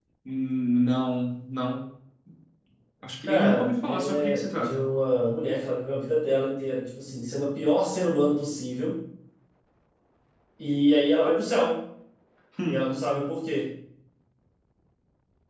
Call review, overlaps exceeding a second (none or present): present